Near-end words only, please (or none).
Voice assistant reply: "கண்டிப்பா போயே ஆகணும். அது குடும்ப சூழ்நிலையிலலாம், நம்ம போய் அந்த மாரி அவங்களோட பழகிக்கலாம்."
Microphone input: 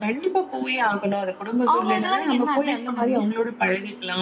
அவங்களுக்கெல்லாம் நீங்க என்ன அட்வைஸ் பண்ணுங்க?